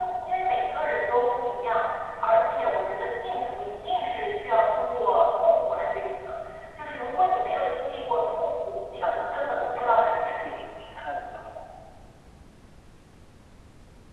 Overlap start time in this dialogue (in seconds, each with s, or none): 9.0 s